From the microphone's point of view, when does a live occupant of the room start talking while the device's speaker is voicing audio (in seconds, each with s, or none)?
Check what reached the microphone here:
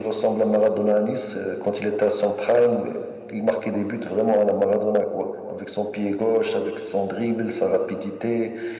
none